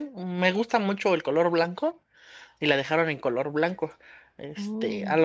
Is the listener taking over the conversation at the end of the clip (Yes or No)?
No